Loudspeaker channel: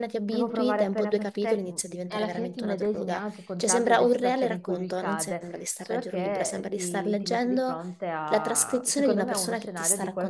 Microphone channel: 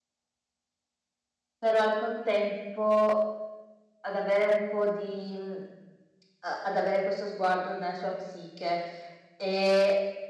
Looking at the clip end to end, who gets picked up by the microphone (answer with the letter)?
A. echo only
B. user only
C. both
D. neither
B